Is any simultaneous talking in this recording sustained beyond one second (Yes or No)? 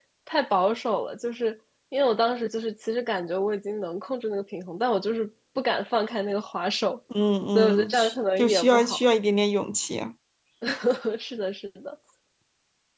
Yes